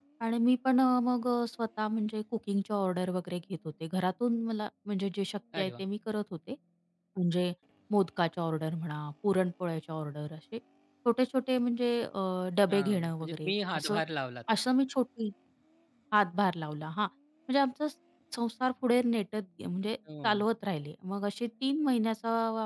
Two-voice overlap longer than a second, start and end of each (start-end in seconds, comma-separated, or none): 12.7-14.0